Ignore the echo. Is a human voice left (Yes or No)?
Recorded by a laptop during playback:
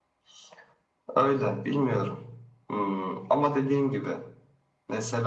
No